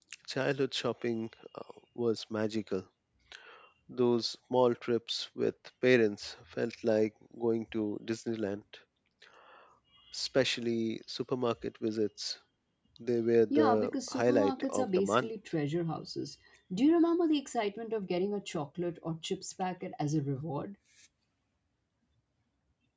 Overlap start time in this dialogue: 14 s

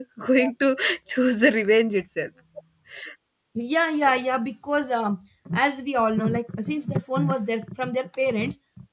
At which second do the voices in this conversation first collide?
none

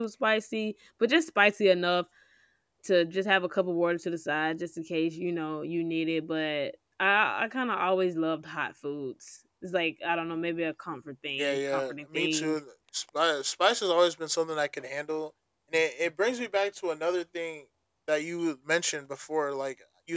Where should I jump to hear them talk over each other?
11 s

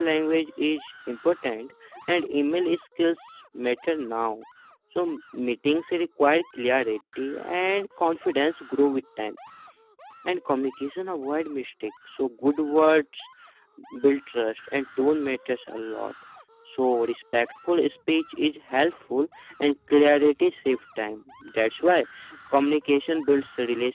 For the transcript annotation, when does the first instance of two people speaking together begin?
none

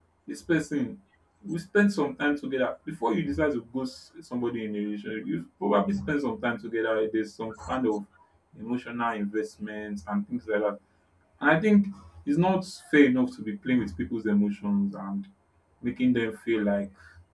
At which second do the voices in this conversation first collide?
none

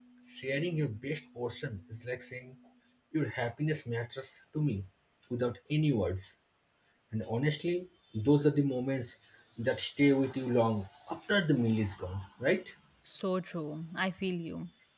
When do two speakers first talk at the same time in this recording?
none

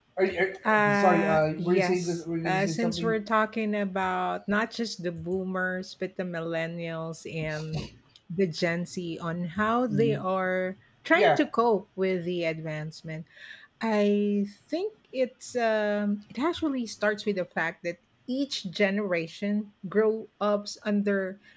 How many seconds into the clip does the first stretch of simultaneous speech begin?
1 s

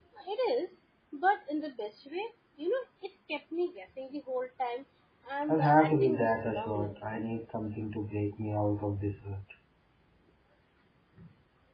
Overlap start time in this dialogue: 5 s

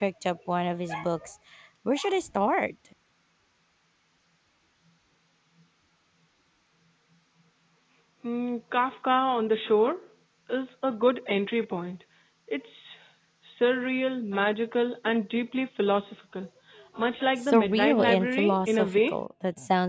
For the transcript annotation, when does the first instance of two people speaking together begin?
17 s

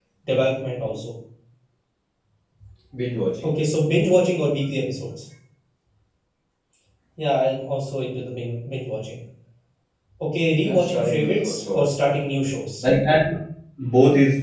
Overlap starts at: 11 s

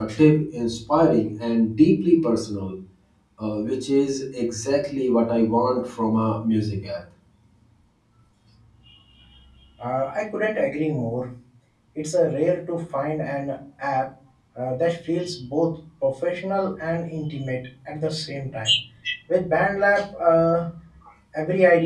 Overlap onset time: none

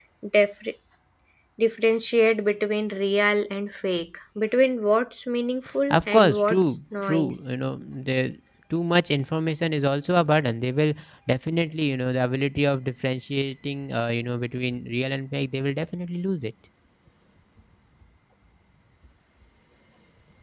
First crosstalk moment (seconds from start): 6 s

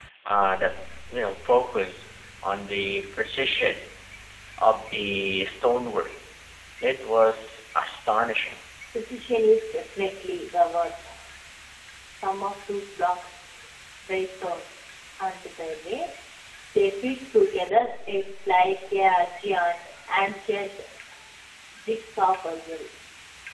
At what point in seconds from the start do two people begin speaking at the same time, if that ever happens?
none

